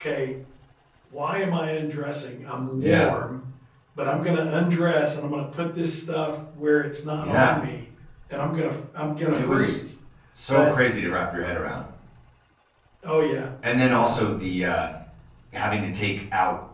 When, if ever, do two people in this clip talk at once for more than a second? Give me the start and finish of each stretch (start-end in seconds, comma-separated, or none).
none